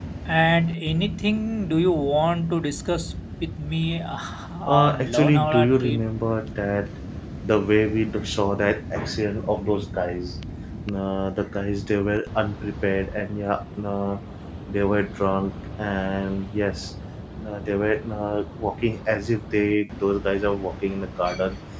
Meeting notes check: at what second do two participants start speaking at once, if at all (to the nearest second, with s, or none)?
5 s